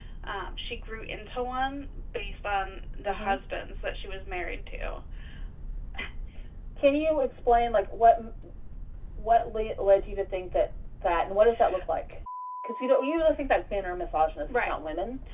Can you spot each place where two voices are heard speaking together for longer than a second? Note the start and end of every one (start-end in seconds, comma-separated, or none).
none